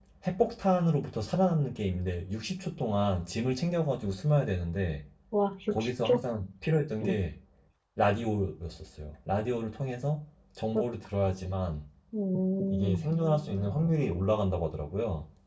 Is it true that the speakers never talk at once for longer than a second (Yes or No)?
Yes